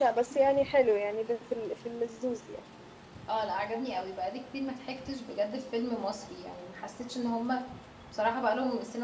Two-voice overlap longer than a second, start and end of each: none

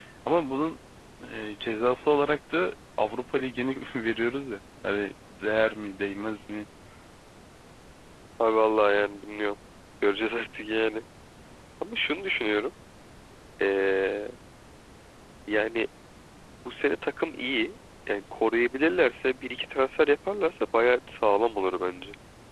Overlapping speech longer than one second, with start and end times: none

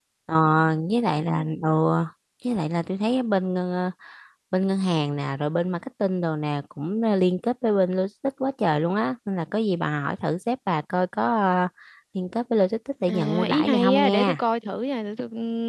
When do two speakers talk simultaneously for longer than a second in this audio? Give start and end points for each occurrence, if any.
13.1-14.4

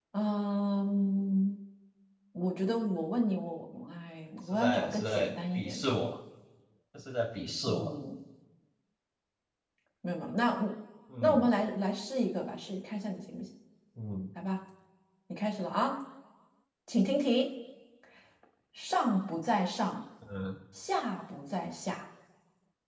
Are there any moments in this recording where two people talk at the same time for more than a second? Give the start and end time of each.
4.5-5.9

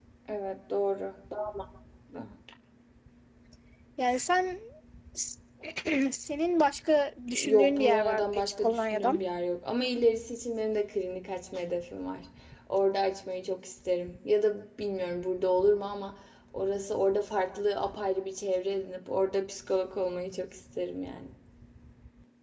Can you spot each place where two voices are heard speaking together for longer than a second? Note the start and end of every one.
7.4-9.2

